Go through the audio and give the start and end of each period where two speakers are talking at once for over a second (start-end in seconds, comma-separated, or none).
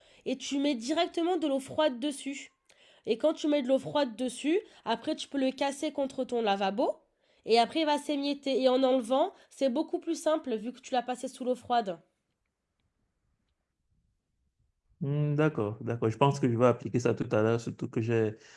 none